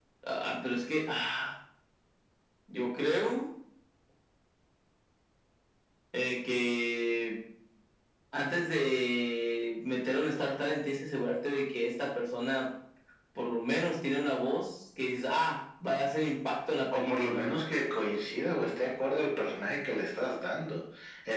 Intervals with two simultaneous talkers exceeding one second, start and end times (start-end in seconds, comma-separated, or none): none